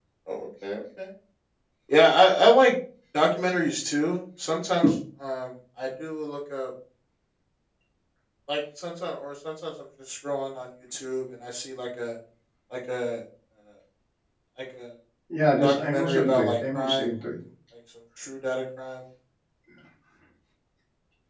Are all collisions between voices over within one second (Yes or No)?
No